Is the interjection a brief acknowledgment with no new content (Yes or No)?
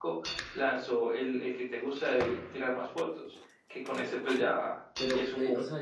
No